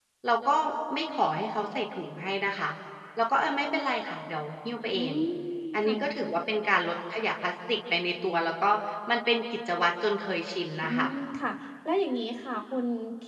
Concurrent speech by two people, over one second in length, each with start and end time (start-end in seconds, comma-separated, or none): none